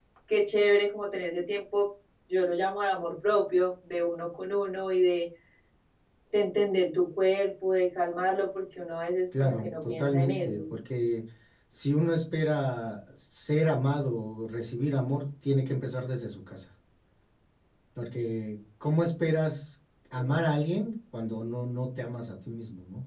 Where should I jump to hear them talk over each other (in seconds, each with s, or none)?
9.3 s